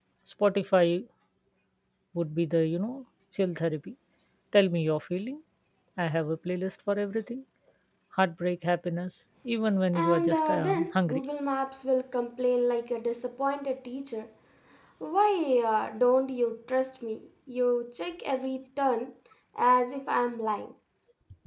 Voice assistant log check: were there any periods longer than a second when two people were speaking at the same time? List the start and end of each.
9.9-11.2

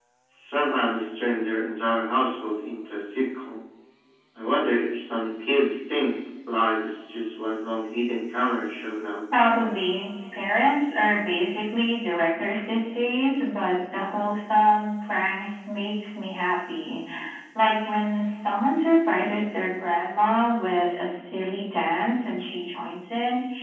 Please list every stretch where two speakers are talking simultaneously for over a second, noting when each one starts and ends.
none

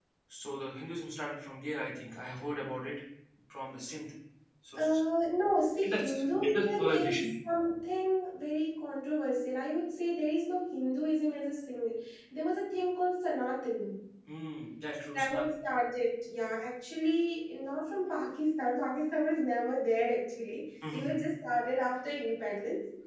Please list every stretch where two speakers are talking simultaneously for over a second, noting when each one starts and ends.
5.8-7.3

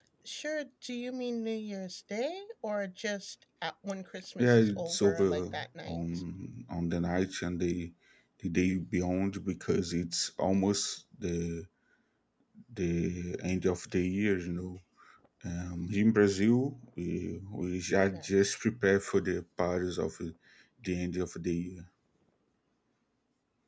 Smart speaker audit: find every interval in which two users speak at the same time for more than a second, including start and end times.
4.4-6.0

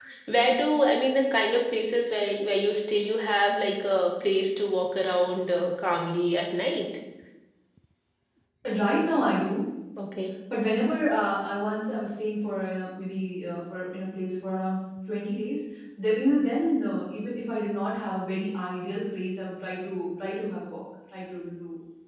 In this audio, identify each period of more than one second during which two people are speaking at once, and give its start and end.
none

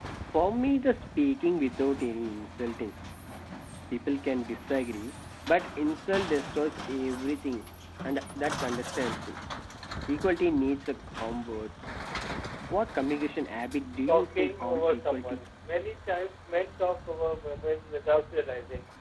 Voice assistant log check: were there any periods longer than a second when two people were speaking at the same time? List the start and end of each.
14.1-15.4

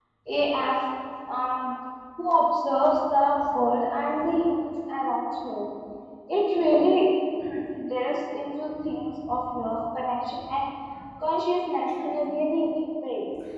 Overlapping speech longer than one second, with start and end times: none

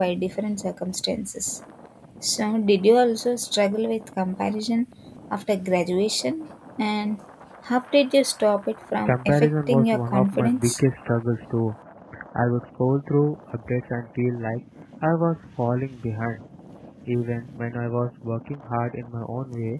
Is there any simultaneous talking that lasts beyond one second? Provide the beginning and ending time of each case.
9.1-10.8

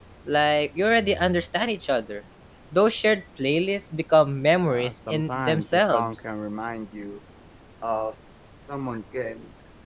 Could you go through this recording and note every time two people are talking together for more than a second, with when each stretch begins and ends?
4.7-6.2

